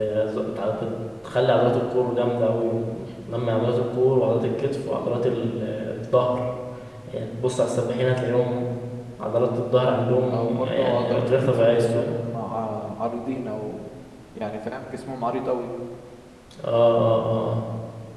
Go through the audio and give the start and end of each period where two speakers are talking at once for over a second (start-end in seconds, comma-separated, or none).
10.3-12.1